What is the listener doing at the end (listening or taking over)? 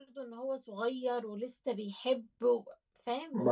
taking over